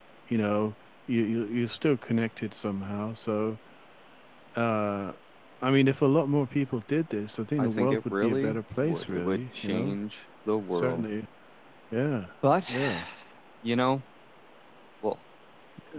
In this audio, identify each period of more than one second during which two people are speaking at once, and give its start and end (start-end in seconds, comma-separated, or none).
7.6-10.0